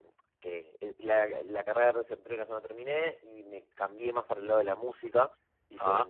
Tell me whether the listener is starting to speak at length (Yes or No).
No